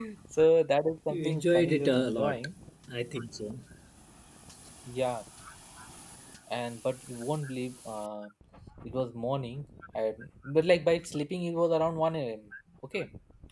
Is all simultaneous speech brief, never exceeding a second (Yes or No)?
No